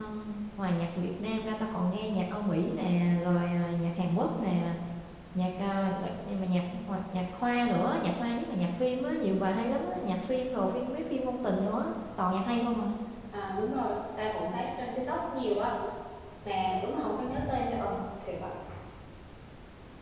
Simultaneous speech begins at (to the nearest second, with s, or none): none